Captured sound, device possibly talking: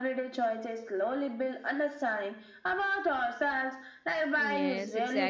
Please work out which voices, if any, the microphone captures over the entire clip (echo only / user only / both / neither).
both